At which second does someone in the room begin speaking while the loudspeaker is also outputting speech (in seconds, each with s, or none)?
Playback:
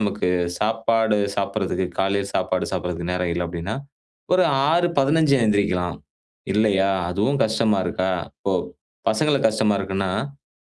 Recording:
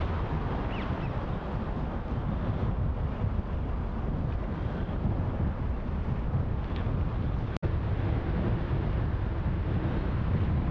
none